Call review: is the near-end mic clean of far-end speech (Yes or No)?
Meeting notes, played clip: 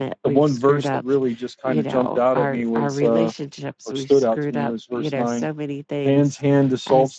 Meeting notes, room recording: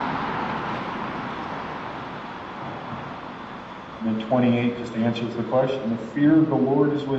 Yes